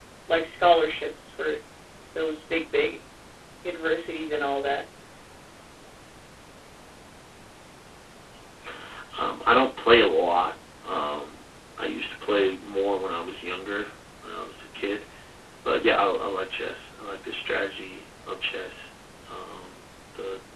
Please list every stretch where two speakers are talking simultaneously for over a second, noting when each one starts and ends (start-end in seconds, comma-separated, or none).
none